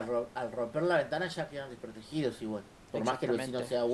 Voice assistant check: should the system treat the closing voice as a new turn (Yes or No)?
Yes